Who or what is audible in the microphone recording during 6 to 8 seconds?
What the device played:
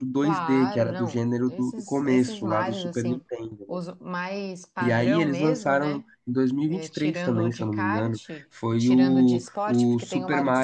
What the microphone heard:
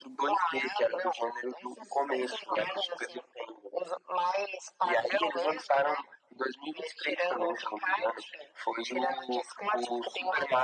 echo only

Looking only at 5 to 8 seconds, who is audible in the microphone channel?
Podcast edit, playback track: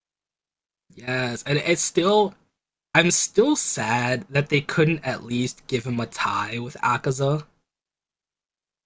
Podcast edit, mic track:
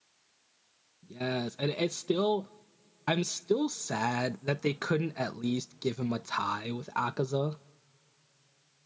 echo only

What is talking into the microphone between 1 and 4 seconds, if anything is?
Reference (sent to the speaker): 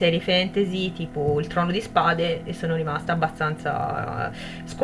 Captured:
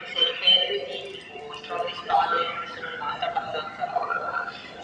echo only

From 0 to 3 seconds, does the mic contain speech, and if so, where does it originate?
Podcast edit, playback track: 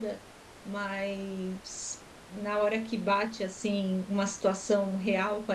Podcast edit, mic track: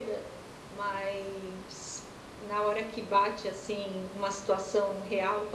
echo only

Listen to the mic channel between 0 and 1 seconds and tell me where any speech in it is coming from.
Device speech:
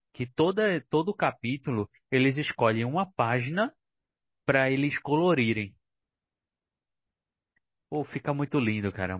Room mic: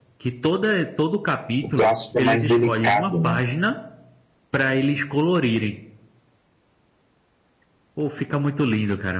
echo only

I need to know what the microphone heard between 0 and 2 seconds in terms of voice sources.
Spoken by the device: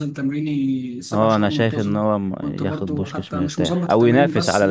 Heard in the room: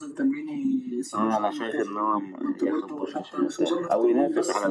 echo only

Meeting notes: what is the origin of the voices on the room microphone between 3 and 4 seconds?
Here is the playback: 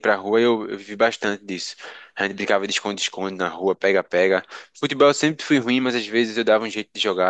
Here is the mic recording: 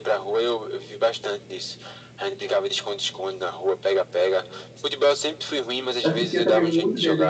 echo only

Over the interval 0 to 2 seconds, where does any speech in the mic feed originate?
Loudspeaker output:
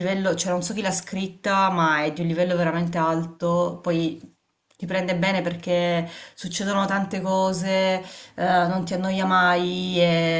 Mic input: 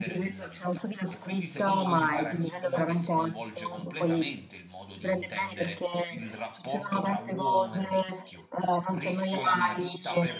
both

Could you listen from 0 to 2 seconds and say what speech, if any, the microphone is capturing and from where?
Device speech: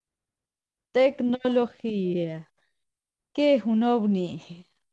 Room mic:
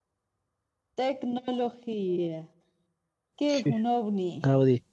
echo only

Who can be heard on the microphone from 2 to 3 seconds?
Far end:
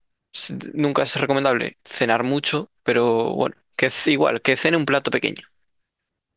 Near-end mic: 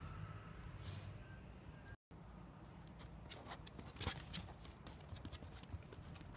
neither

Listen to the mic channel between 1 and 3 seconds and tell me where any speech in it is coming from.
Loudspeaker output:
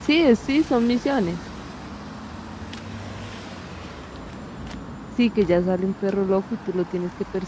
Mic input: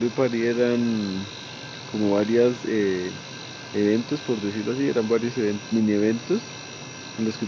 user only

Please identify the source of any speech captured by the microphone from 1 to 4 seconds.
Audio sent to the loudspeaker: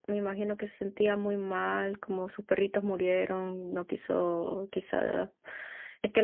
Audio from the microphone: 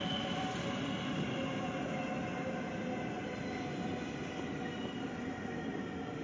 neither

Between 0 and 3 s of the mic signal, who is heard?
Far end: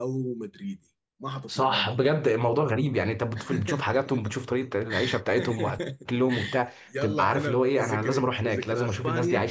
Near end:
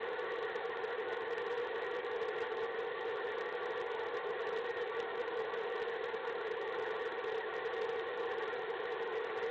neither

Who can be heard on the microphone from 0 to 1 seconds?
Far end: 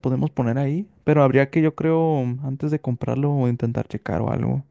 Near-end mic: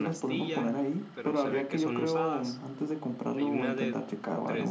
both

